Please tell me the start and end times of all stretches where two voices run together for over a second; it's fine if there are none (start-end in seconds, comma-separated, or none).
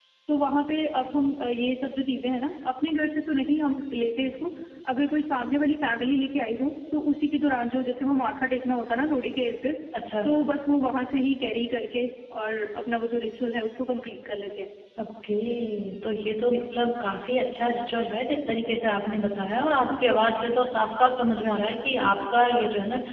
none